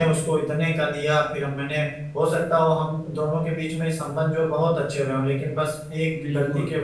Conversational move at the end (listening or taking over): listening